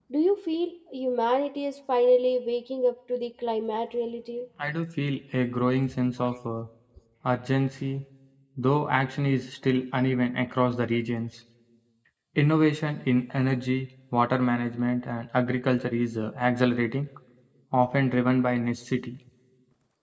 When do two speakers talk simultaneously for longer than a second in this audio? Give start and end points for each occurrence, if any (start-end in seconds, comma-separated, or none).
none